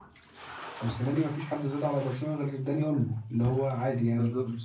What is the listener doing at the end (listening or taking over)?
listening